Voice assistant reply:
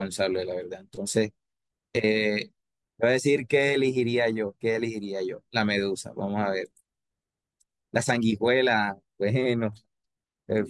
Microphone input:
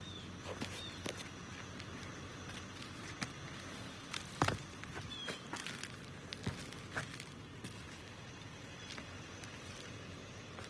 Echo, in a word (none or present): none